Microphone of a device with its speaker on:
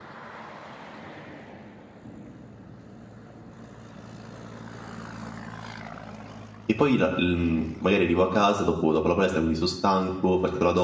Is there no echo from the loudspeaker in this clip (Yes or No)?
Yes